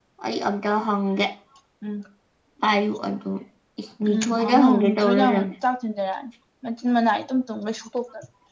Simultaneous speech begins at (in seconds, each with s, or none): 4.0 s